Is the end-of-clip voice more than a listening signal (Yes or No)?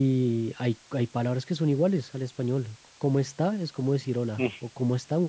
No